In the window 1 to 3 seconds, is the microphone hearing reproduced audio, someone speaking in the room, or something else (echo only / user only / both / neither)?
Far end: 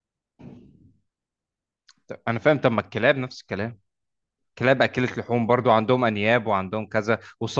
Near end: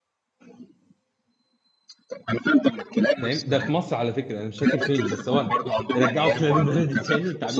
echo only